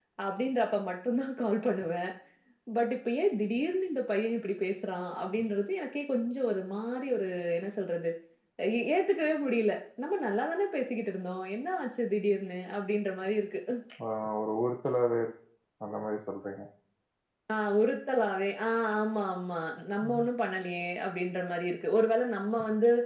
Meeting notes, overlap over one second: none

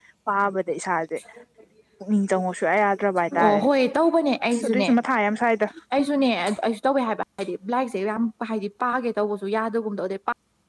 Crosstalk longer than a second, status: none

